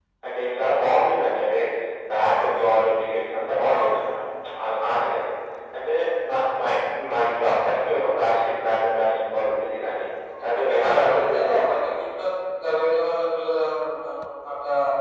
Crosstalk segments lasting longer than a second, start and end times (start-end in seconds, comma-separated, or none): 10.4-11.9